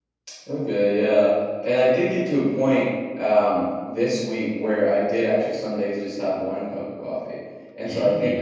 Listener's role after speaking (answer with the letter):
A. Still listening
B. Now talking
A